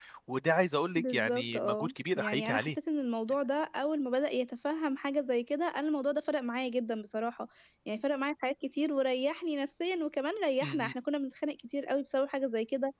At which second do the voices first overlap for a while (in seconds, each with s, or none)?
1.0 s